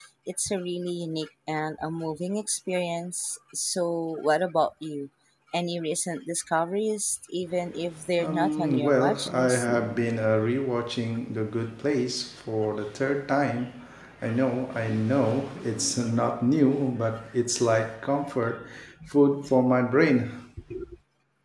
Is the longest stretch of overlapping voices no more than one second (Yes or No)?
No